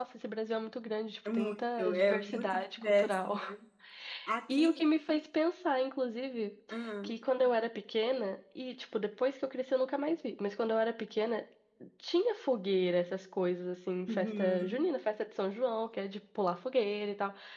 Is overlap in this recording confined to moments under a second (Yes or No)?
No